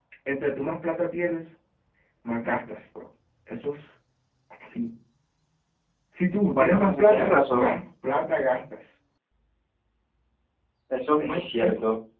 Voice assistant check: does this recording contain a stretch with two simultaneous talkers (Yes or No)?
Yes